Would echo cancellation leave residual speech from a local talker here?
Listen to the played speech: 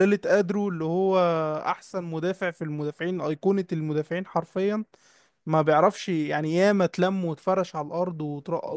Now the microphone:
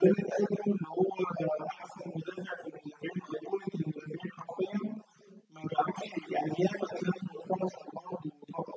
No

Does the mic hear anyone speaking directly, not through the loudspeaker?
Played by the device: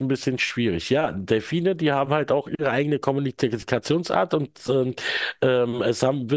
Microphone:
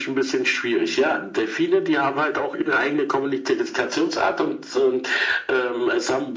No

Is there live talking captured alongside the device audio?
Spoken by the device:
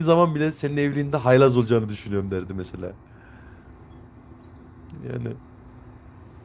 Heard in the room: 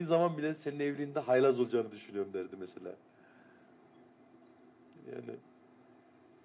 No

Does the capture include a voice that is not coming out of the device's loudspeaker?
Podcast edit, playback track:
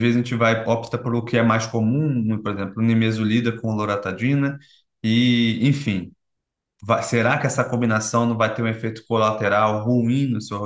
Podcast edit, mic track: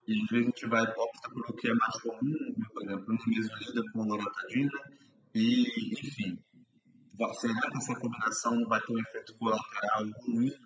No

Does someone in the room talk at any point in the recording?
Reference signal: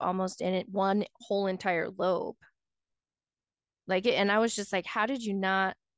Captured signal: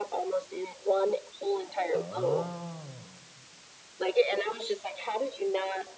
Yes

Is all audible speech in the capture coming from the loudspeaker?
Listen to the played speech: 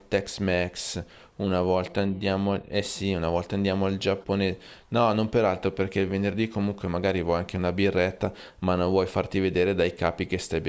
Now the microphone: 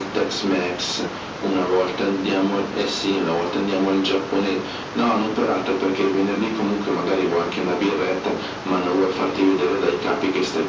Yes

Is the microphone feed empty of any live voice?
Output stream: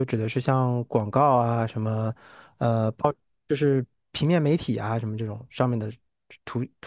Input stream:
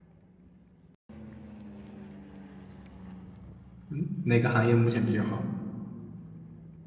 No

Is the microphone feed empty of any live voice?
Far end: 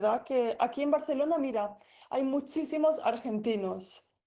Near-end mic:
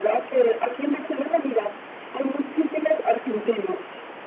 Yes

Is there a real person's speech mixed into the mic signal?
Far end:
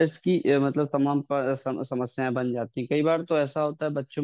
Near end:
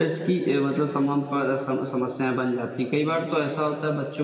No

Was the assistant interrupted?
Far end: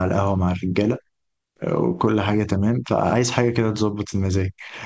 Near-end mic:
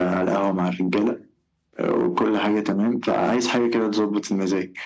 No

